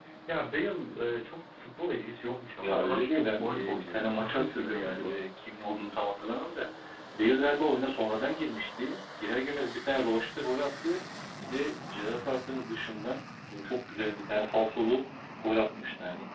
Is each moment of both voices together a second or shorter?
No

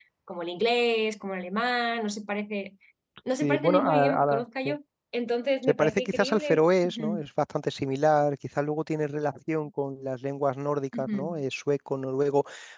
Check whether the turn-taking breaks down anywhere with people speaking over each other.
Yes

